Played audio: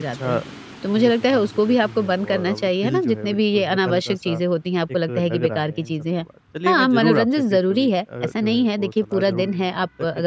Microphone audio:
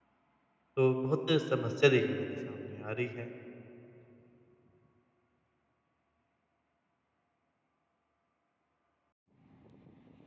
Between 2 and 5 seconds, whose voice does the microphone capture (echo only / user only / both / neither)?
user only